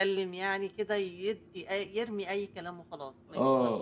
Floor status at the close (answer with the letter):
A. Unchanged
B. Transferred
B